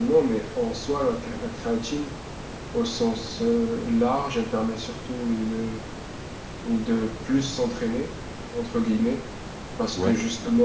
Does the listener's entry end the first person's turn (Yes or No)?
No